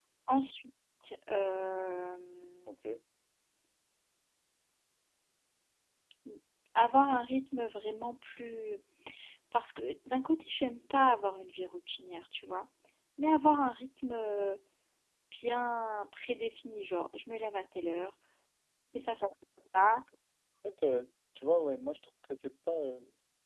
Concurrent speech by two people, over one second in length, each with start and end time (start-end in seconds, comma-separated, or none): none